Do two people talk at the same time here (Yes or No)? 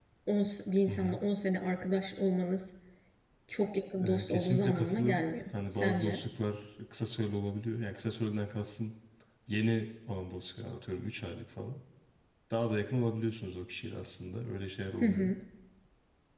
Yes